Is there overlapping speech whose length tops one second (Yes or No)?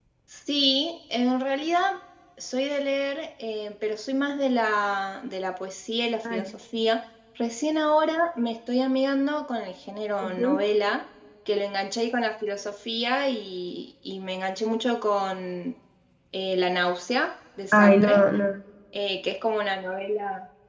No